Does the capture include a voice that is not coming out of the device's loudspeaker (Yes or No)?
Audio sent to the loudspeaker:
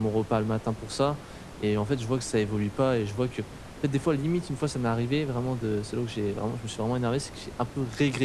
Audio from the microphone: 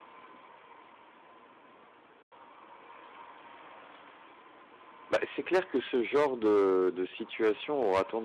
Yes